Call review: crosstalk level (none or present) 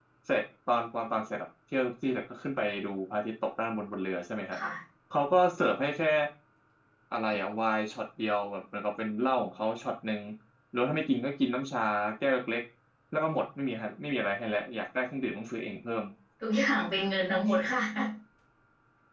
none